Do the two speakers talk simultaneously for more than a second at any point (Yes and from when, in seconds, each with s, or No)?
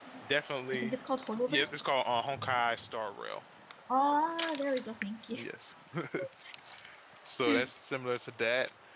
No